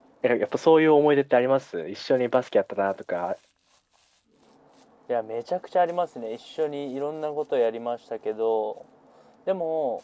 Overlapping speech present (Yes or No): No